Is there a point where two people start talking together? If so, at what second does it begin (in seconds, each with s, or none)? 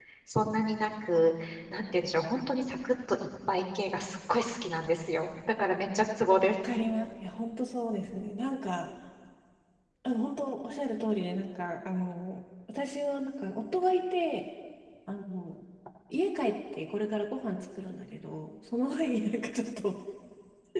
none